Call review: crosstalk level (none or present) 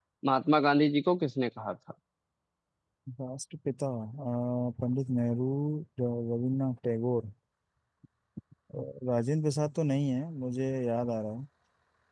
none